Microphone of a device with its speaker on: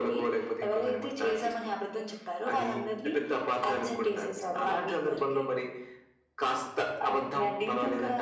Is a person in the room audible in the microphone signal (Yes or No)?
No